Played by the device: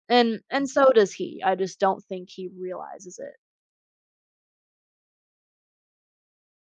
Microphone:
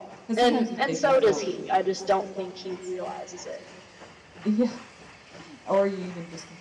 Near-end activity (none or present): present